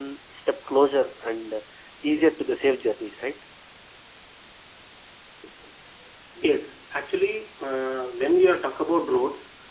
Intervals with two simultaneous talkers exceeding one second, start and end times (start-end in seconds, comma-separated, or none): none